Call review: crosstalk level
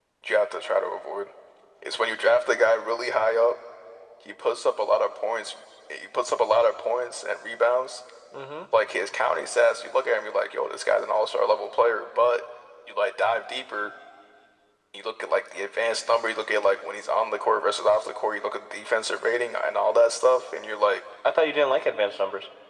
none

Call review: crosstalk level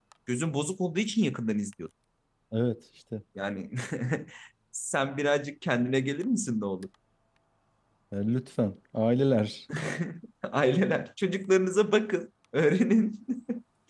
none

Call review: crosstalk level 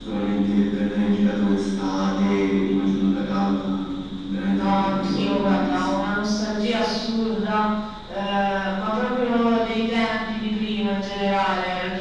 present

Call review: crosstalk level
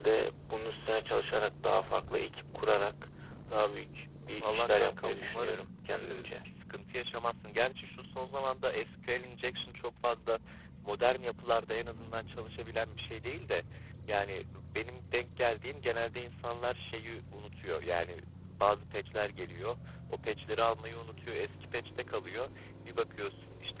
present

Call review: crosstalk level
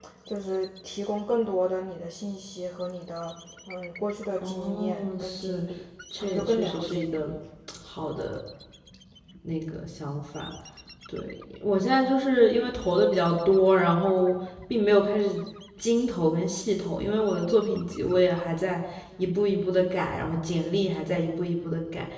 present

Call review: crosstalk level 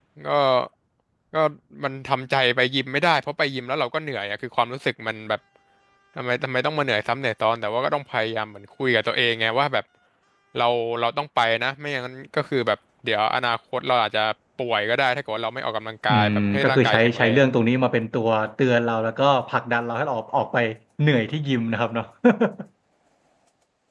present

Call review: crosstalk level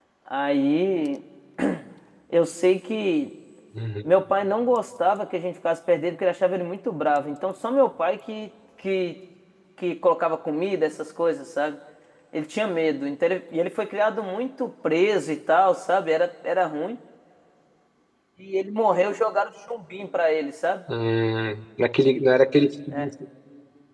none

